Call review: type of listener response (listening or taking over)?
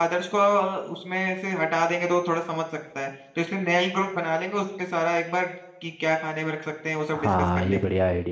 taking over